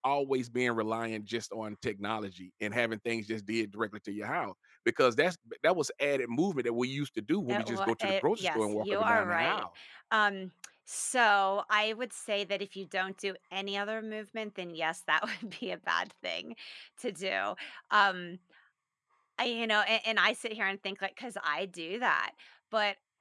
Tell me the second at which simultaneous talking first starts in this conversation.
7.5 s

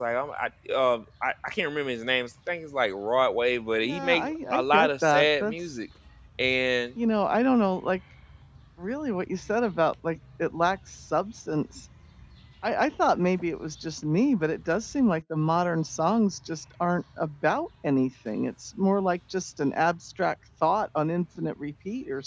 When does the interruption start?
3.8 s

